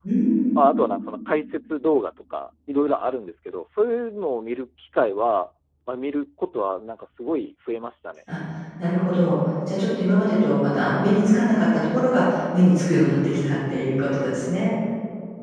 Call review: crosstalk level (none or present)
none